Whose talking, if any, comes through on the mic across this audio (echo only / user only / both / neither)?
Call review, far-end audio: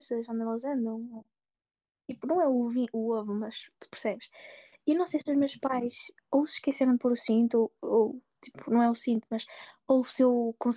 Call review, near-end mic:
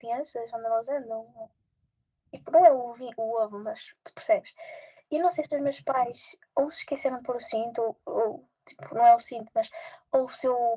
echo only